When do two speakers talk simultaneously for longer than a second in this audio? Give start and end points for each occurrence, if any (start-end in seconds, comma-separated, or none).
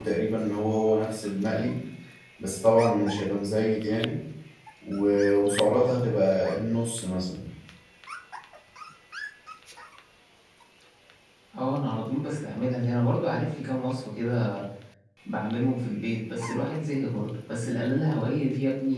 none